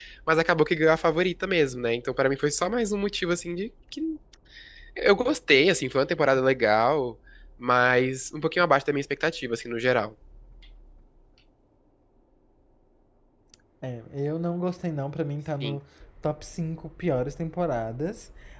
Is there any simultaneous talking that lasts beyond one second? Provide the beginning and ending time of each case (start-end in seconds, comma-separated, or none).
none